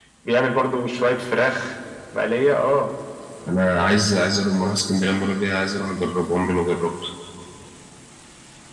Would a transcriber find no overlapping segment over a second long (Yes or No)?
Yes